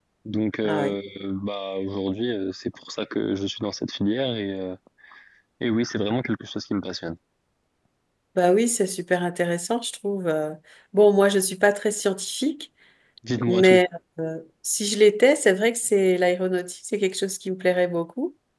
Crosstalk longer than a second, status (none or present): none